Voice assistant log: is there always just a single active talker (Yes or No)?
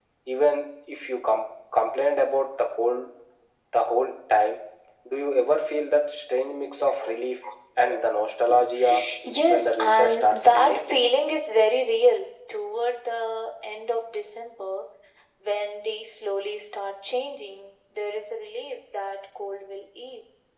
No